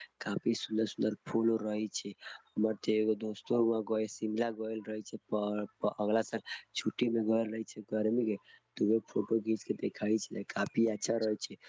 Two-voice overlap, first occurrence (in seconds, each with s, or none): none